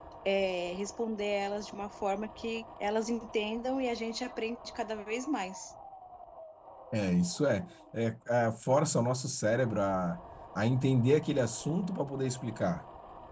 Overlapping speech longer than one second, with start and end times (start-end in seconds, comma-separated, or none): none